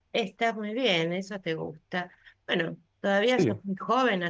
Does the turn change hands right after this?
No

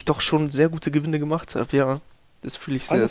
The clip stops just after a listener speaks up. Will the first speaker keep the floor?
No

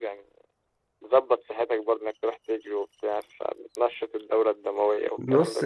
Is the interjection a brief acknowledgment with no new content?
No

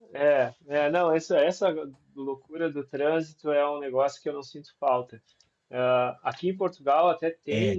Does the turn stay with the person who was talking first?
Yes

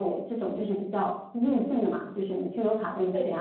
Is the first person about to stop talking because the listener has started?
No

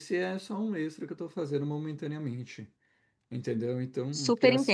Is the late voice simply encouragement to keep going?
Yes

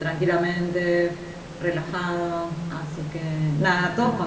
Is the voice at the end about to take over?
No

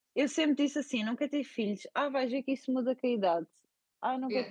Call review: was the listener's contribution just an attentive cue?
No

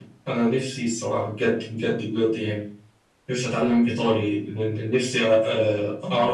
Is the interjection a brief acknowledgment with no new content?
Yes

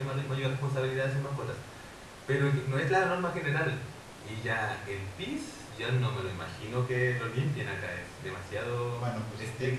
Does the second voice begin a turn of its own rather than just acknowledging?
Yes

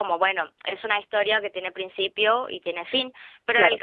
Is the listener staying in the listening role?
Yes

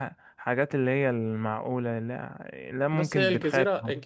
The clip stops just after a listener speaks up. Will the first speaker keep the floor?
No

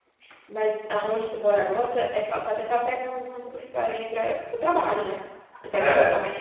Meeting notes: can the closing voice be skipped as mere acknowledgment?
Yes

